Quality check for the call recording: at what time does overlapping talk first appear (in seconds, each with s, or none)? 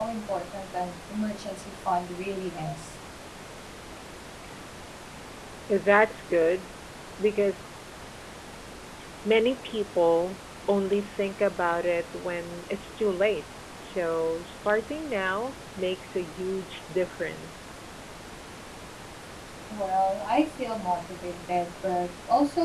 none